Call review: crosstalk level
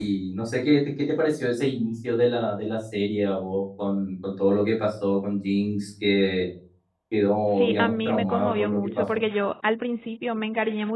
present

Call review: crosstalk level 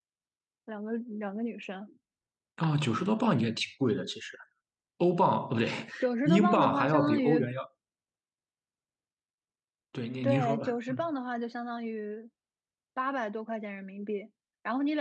present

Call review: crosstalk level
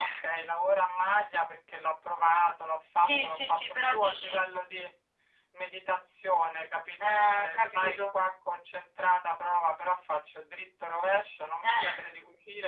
present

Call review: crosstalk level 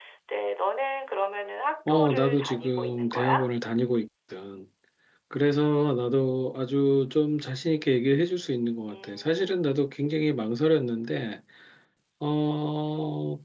present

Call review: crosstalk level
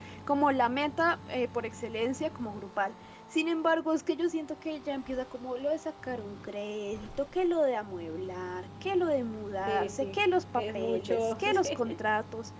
present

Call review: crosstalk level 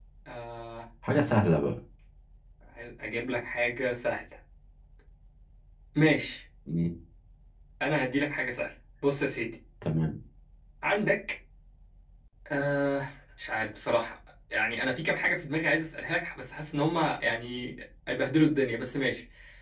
none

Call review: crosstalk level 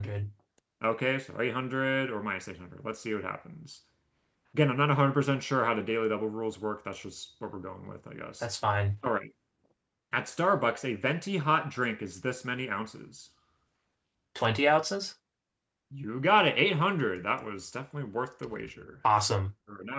none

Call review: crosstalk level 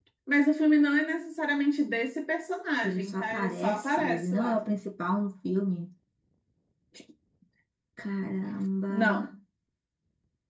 present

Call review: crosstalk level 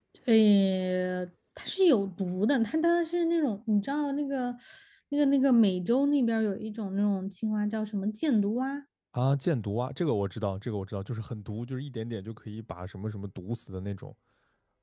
none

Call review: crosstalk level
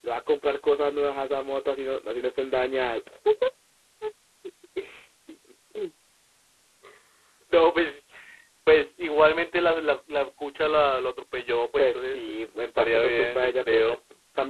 present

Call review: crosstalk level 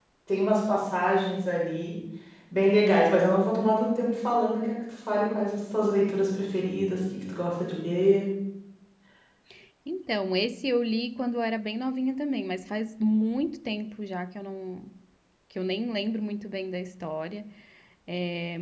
none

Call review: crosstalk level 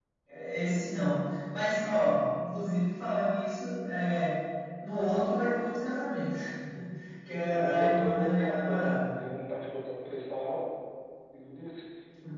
present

